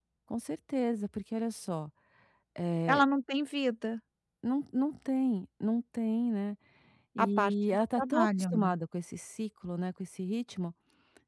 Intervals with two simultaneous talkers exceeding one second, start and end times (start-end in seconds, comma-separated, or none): 7.2-8.8